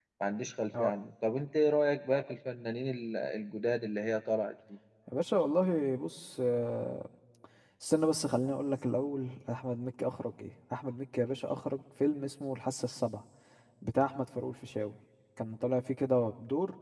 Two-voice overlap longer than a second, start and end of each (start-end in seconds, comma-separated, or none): none